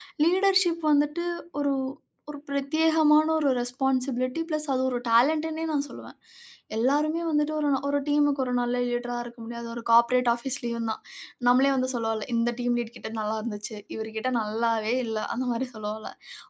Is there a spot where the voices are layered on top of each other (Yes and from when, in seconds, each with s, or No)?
No